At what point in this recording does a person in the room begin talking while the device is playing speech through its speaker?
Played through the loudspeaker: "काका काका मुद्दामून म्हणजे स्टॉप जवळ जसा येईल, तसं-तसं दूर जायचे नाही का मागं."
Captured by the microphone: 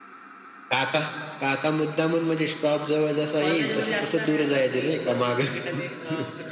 3 s

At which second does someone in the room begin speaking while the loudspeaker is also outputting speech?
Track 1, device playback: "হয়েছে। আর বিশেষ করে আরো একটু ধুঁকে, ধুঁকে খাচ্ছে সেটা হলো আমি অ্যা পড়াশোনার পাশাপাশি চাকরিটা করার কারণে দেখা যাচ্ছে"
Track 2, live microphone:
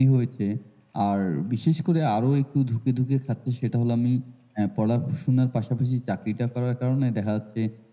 none

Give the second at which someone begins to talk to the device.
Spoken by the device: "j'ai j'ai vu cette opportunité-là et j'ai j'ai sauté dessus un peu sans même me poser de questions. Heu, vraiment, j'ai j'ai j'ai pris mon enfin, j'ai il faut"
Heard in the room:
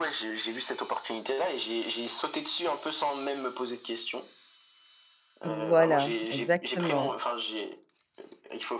5 s

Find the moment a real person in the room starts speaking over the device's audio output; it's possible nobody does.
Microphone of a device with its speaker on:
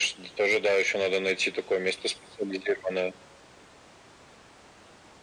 none

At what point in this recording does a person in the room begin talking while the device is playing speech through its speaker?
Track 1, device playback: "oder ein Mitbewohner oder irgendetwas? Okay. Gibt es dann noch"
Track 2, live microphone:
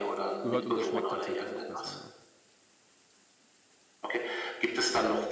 0 s

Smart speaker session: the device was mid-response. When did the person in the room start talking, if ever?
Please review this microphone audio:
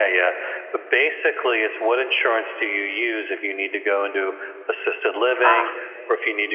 5 s

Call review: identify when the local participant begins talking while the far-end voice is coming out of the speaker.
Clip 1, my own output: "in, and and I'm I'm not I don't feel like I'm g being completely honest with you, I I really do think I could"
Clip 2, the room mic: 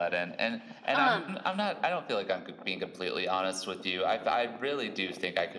1 s

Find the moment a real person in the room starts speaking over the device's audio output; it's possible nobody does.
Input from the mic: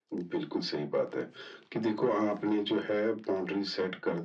none

